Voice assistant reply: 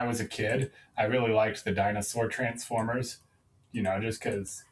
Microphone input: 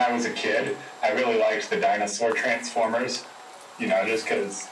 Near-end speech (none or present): none